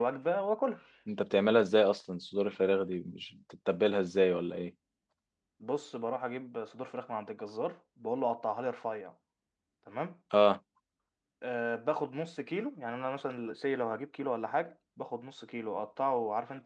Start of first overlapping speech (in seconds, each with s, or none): none